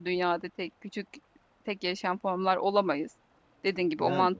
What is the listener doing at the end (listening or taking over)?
listening